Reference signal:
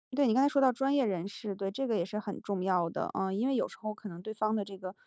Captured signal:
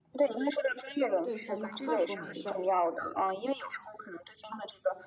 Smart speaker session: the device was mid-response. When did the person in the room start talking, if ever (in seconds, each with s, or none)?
1.2 s